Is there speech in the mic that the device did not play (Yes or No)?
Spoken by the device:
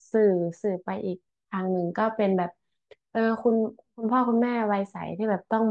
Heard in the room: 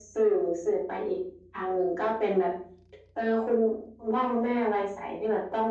No